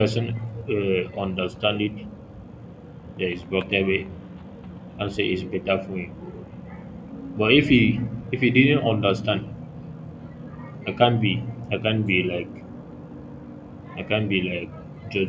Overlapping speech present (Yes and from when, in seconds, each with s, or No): No